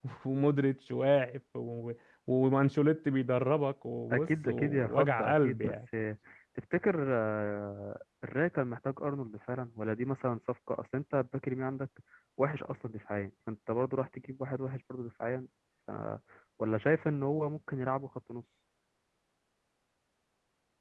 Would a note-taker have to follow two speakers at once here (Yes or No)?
Yes